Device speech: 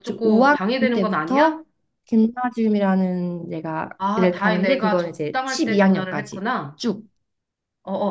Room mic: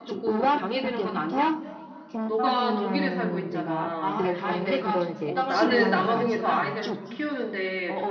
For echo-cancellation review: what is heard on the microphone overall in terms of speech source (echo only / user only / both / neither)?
both